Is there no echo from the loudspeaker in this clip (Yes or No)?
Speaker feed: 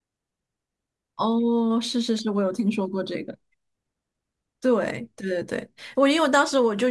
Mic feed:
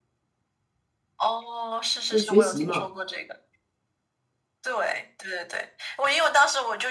No